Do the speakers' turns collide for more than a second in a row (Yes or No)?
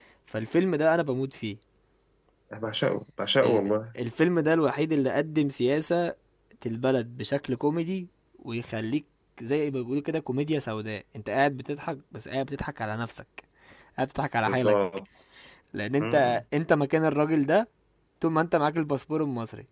No